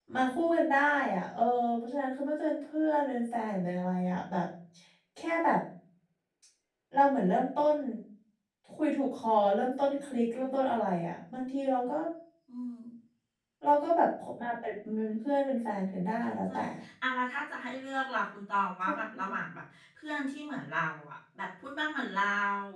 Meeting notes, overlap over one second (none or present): none